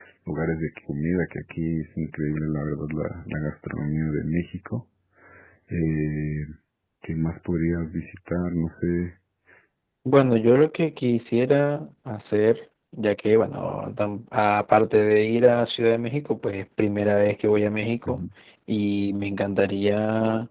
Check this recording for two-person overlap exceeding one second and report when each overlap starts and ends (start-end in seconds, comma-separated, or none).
none